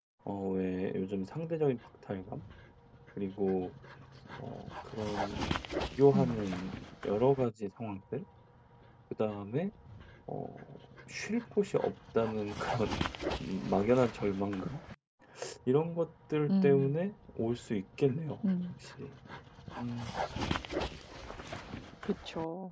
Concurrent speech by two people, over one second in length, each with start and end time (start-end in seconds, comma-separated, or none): none